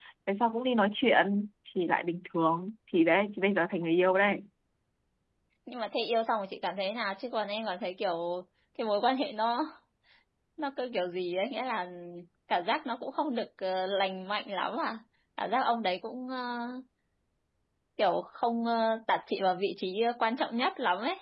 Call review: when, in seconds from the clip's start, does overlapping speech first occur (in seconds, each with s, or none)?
none